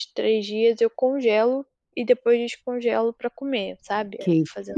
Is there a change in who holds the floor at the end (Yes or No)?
Yes